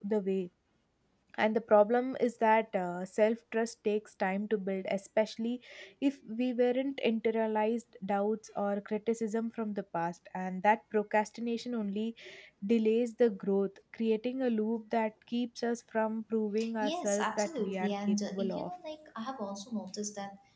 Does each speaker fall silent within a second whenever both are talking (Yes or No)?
No